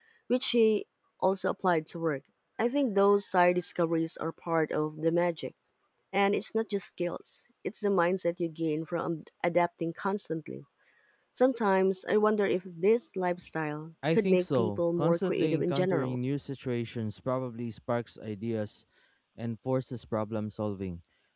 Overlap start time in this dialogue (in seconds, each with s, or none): 14.0 s